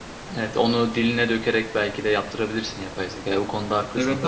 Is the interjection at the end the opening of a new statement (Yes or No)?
Yes